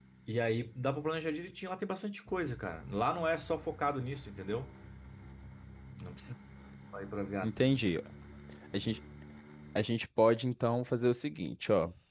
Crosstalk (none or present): none